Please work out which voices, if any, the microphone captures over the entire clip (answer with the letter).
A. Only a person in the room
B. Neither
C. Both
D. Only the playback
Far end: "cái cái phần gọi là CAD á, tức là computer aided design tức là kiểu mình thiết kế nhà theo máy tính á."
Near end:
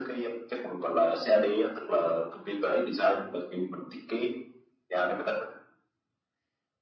D